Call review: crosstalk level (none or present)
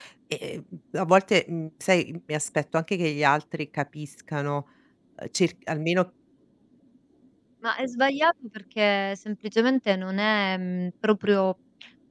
none